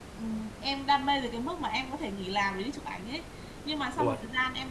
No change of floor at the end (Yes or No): Yes